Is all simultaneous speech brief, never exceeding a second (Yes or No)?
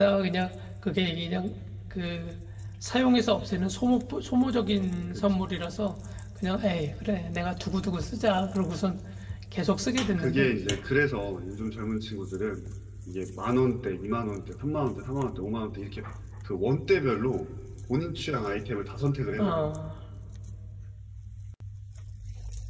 Yes